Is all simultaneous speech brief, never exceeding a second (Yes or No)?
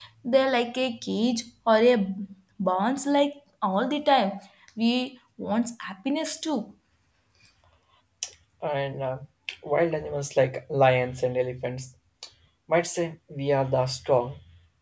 Yes